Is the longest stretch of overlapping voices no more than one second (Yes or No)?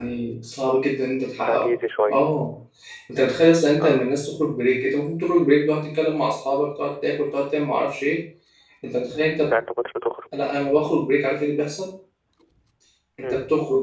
Yes